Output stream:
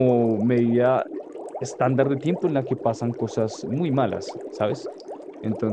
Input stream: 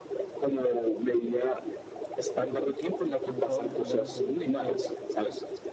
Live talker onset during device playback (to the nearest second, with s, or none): 3 s